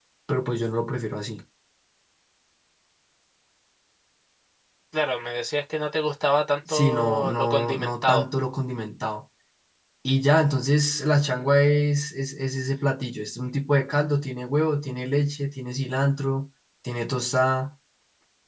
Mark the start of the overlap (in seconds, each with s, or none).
6.7 s